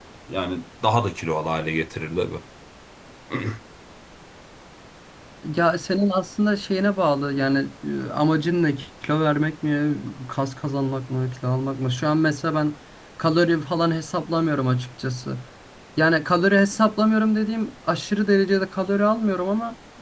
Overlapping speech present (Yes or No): No